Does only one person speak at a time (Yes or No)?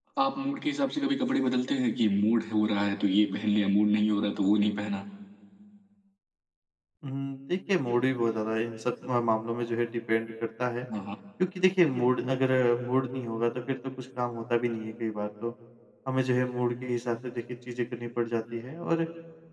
Yes